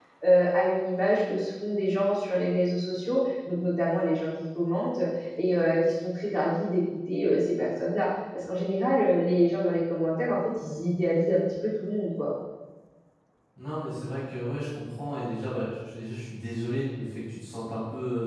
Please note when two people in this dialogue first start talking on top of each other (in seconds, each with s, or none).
none